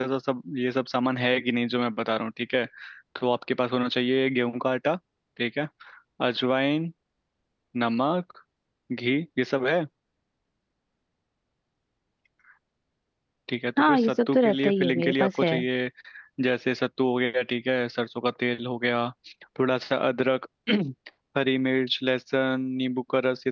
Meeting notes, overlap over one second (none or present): present